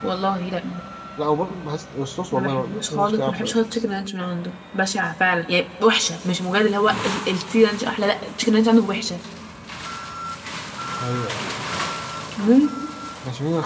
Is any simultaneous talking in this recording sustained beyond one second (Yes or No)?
Yes